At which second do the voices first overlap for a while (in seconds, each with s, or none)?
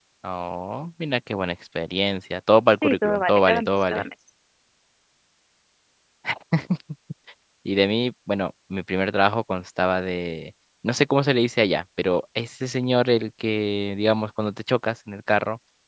2.8 s